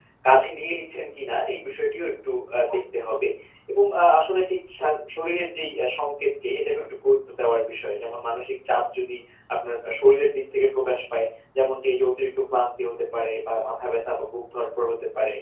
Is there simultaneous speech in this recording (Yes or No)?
No